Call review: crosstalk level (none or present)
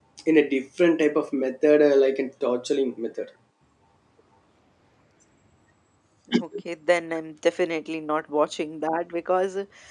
none